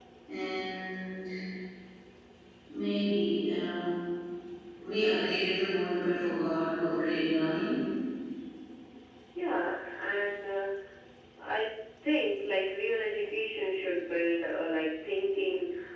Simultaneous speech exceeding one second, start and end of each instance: none

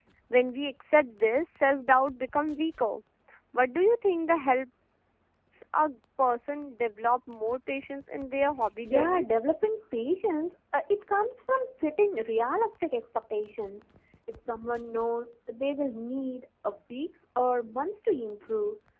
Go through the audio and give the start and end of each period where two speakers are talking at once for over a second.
none

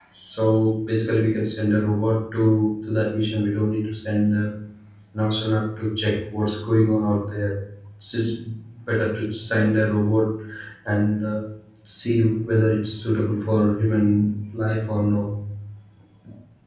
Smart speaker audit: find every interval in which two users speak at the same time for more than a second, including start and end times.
none

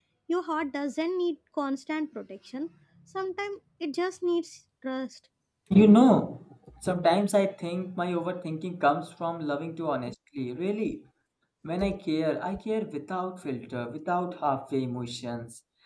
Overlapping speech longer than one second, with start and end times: none

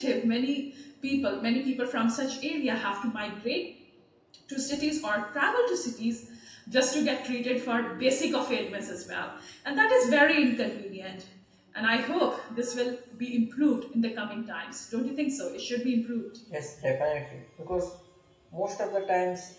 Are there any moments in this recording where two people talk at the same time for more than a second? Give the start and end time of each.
none

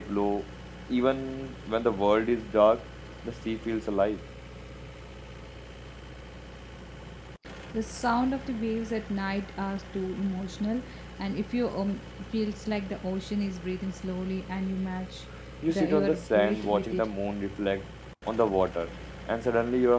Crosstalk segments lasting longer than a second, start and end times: 15.7-17.1

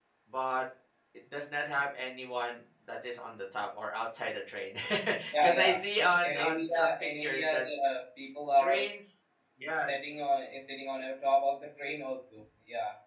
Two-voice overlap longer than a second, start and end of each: 6.2-7.6

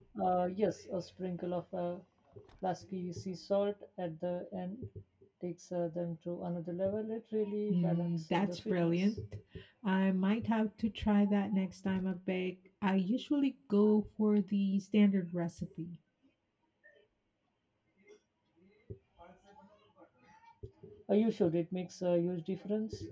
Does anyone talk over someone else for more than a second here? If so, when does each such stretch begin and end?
7.7-9.2

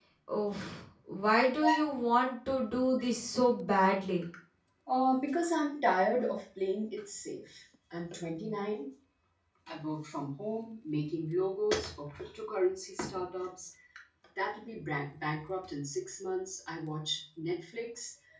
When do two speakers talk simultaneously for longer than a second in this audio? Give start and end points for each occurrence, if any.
none

